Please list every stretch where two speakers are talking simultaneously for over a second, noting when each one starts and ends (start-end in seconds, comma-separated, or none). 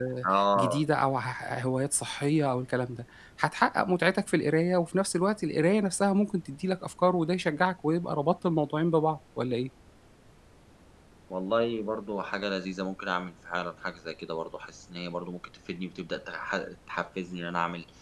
none